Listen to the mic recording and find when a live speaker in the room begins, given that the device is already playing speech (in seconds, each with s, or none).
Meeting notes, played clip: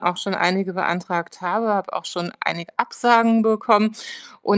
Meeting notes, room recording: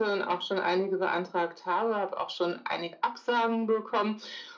none